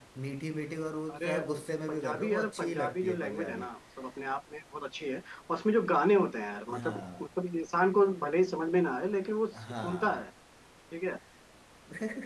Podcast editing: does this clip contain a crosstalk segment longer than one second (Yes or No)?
Yes